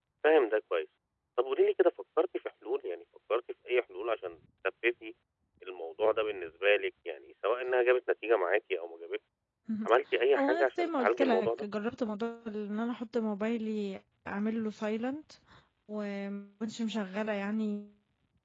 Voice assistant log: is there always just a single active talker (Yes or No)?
No